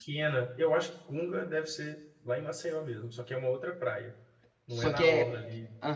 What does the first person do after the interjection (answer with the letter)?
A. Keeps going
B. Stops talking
B